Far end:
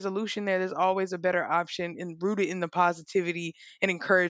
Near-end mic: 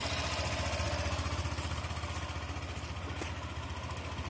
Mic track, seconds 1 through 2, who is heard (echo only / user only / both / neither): neither